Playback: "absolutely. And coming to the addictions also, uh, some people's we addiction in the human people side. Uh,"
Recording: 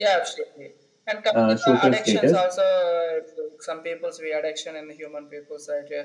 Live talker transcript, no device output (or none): uh, social status.